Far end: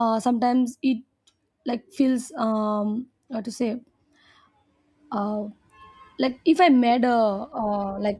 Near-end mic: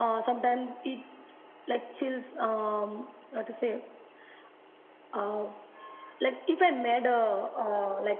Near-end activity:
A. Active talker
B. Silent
B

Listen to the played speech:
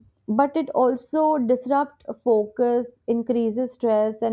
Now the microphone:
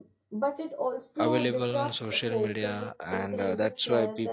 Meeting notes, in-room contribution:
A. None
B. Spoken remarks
B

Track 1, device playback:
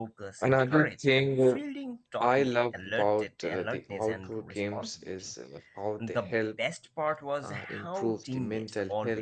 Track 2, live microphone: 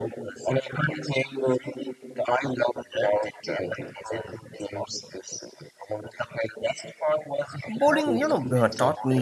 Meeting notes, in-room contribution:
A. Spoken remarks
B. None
A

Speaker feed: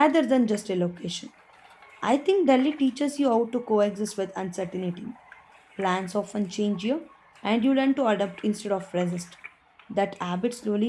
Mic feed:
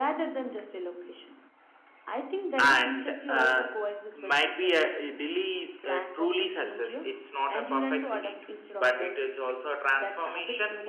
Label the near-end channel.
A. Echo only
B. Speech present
B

